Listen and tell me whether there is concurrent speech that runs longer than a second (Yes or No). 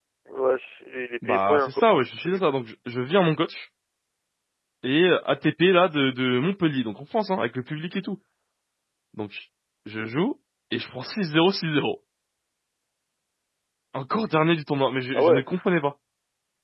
Yes